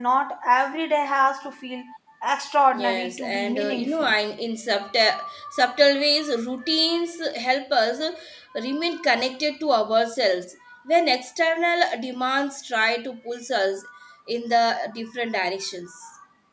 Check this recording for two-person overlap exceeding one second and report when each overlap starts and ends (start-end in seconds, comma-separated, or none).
2.7-4.1